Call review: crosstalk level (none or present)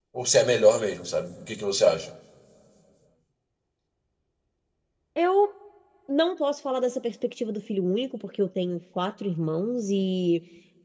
none